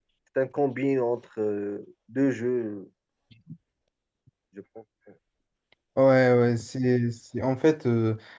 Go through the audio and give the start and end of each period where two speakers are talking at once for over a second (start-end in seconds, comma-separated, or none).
none